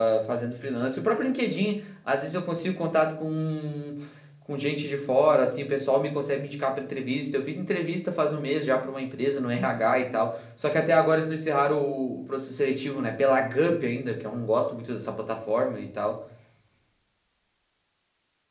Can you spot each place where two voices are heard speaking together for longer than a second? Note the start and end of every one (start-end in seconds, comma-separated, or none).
none